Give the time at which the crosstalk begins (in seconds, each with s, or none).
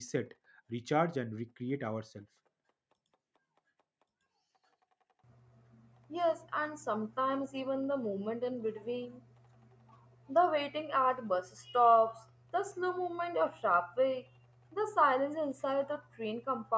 none